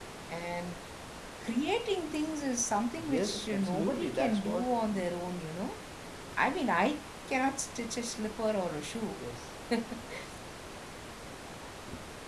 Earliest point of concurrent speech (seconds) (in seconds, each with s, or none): 3.0 s